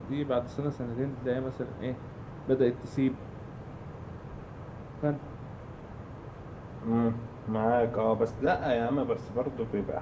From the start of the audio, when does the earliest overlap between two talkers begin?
none

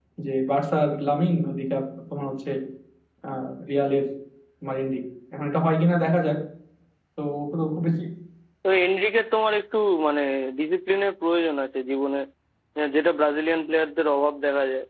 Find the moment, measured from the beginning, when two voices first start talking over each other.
none

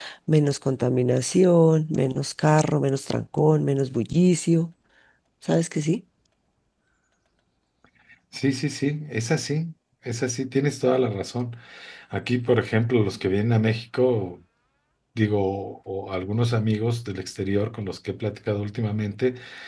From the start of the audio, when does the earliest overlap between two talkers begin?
none

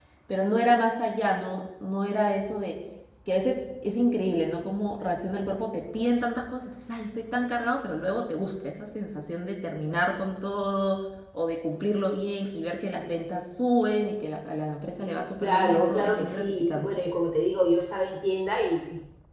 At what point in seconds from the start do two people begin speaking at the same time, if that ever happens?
15.4 s

